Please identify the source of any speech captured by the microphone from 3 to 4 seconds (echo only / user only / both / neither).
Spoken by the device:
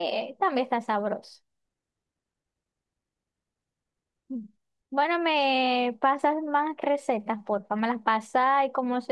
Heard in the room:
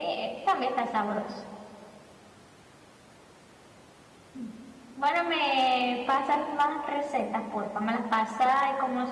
neither